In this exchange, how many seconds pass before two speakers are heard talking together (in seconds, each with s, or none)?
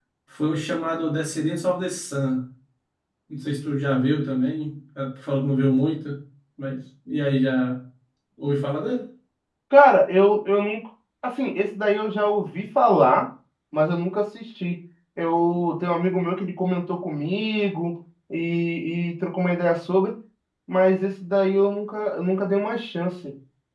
none